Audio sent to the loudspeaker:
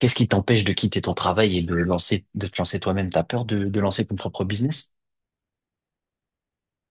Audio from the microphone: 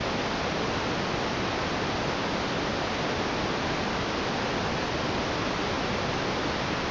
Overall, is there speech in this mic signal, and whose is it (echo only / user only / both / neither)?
neither